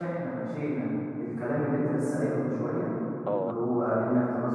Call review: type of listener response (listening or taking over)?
listening